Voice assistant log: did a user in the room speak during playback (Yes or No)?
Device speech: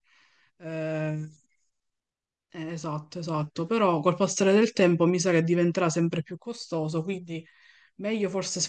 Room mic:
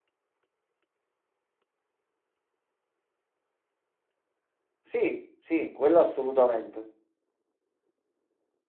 Yes